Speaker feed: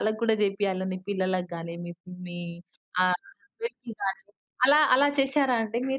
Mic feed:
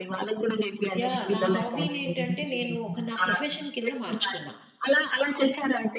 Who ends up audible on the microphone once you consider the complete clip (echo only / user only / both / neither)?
both